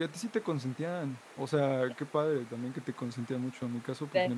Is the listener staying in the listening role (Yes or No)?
Yes